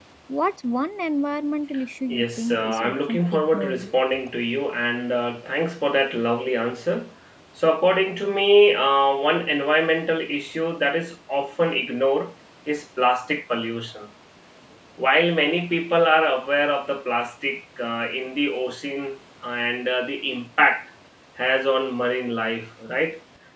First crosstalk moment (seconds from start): 2.1 s

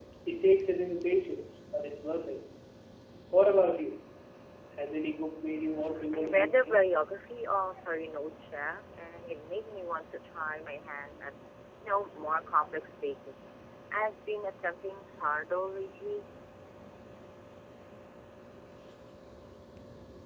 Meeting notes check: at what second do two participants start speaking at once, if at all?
5.5 s

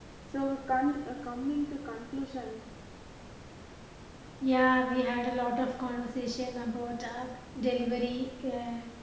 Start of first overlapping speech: none

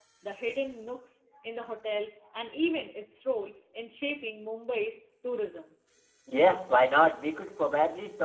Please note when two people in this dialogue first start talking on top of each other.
none

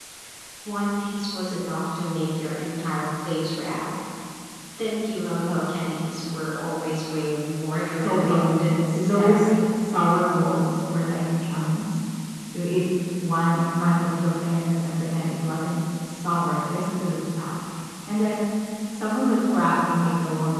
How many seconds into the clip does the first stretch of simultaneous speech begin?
8.0 s

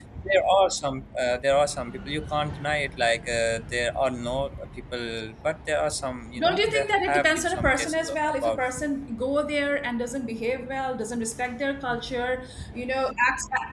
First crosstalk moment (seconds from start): 6.4 s

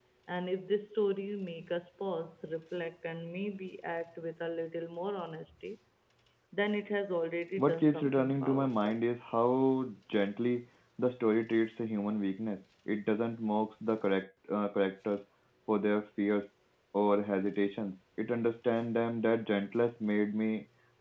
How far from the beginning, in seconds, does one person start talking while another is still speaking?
7.6 s

